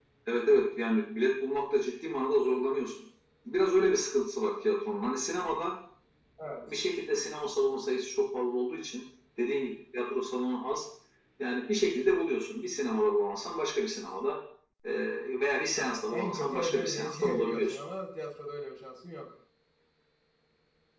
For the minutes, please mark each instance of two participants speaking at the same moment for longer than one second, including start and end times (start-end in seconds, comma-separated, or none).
15.8-17.8